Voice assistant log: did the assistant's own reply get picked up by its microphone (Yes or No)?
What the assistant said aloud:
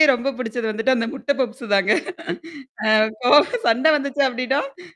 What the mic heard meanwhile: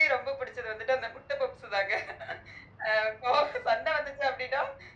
Yes